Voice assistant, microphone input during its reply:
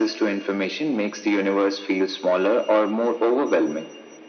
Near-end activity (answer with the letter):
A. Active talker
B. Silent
B